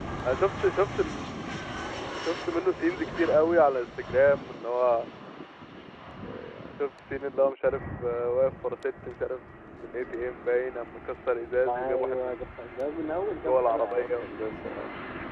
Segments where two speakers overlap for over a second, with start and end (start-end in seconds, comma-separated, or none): 11.7-14.2